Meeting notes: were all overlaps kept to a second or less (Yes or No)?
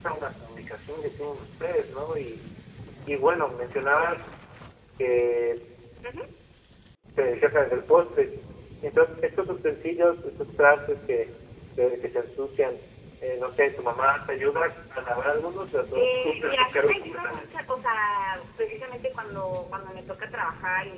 No